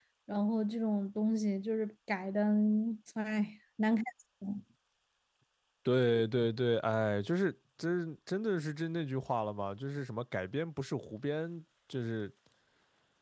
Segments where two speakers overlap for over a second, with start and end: none

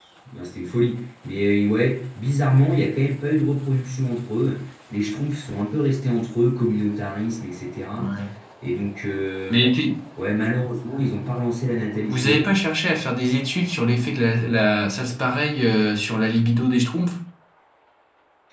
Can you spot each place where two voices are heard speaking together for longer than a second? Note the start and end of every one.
none

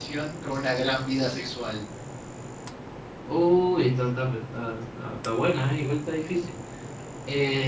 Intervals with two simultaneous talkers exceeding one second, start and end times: none

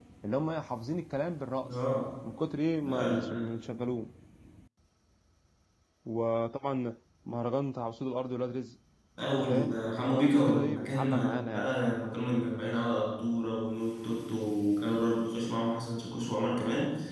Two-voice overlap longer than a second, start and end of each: 9.4-11.7

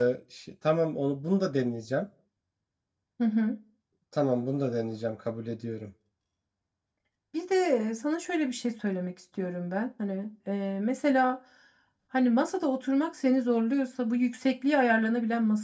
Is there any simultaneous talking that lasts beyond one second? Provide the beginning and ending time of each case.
none

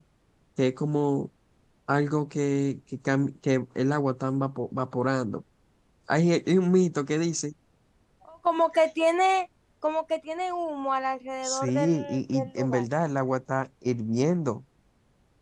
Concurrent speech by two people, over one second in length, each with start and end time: 11.4-12.8

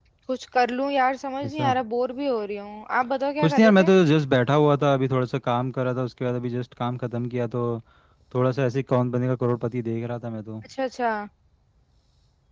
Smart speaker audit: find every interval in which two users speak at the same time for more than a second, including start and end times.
none

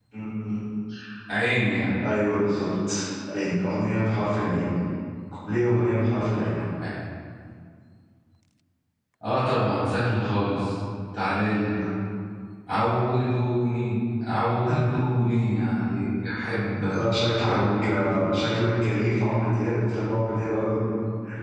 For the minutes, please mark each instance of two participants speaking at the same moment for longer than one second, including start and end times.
17.0-18.4

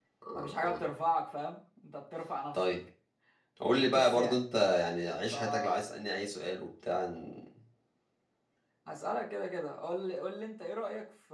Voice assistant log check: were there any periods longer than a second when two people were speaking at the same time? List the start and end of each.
none

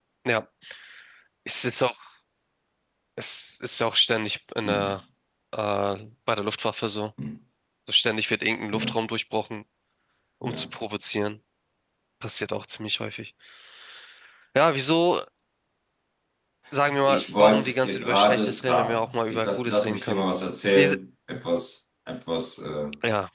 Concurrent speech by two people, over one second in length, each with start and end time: 17.0-20.2

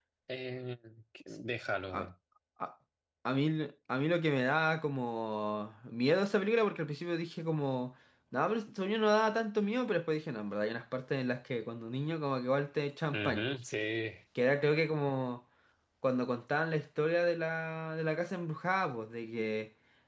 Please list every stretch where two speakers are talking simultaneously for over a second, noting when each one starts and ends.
none

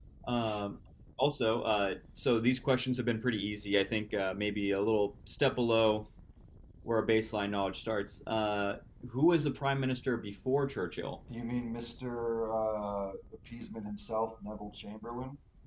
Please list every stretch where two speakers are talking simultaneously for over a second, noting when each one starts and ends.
none

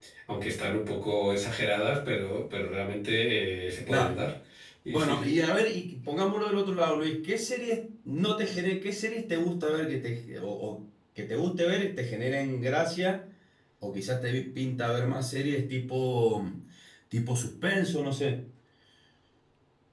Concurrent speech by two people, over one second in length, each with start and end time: none

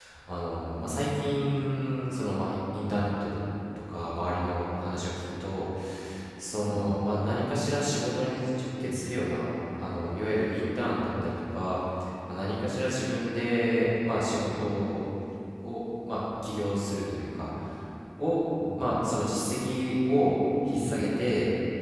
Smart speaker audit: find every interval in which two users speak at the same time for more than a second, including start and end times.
none

